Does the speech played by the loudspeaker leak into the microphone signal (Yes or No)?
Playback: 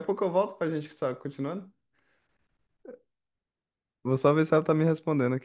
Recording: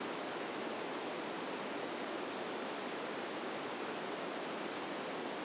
No